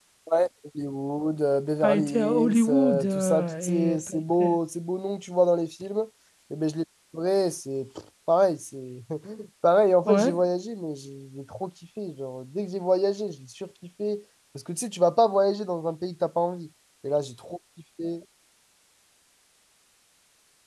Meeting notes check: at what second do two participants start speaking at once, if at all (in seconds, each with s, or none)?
1.8 s